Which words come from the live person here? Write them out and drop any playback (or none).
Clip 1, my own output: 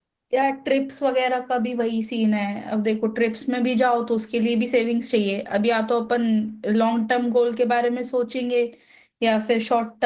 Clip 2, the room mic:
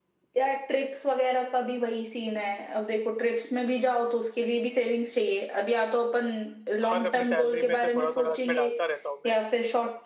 हर अपने सैलरी में से थोड़ा थोड़ा इसमें डालता रहता हूँ मैं